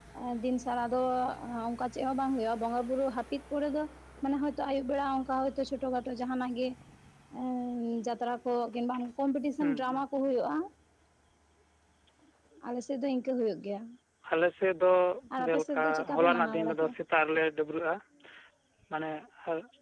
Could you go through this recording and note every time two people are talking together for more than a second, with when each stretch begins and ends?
15.4-16.9

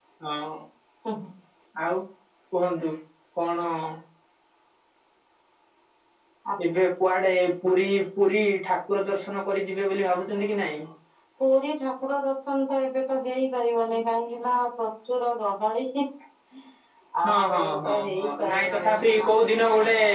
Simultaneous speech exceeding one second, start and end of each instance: 17.2-18.9

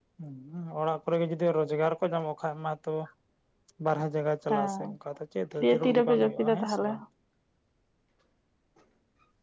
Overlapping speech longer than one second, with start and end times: 5.6-6.9

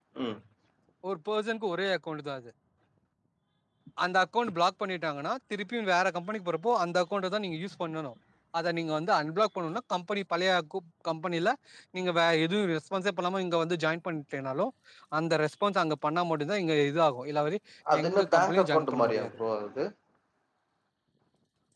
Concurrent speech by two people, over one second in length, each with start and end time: 18.0-19.3

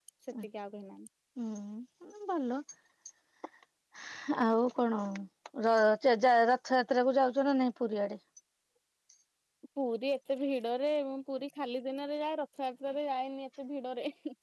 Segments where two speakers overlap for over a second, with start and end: none

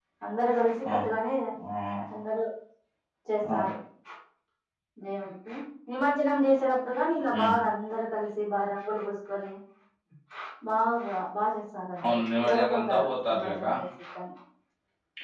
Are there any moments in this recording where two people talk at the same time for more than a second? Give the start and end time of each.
12.1-13.7

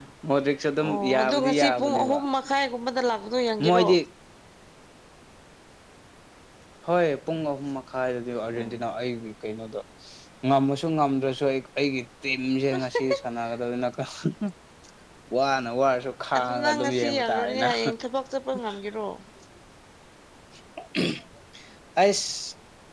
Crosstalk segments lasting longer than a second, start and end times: 0.8-2.2, 16.4-17.7

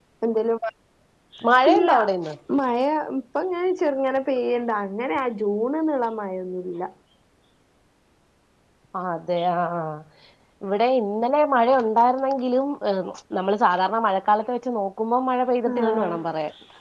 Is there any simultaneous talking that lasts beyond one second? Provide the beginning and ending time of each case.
none

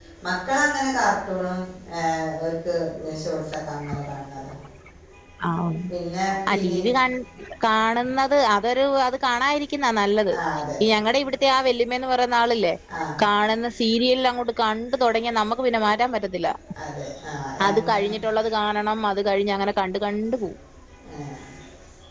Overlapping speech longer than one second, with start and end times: none

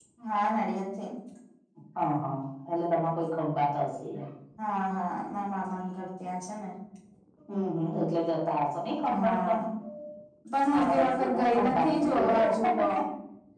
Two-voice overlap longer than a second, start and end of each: 10.7-12.5

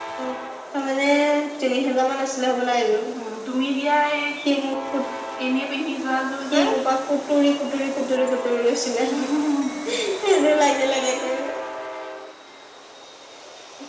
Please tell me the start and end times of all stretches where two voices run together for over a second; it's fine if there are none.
none

